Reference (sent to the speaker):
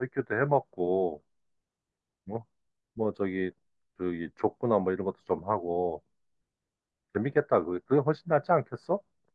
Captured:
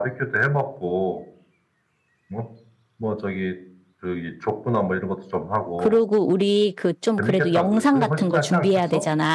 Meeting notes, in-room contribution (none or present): present